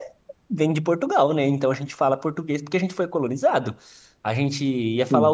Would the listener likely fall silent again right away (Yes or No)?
Yes